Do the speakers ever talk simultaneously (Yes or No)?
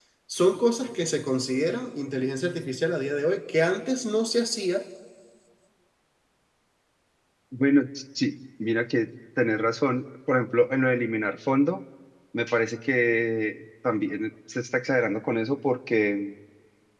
No